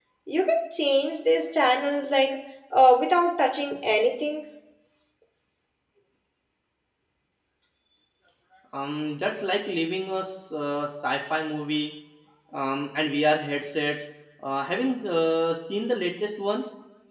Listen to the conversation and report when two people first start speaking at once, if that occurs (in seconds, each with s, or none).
none